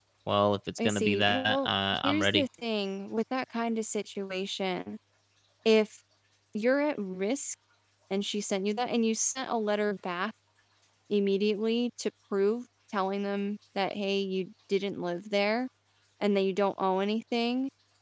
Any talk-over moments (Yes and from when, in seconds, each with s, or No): Yes, from 0.8 s